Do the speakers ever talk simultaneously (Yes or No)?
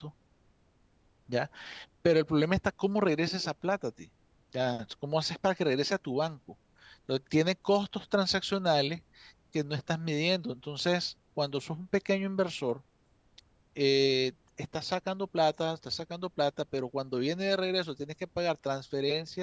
No